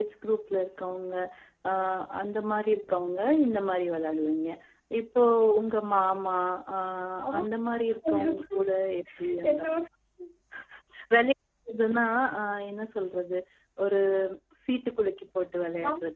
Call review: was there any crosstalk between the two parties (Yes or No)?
Yes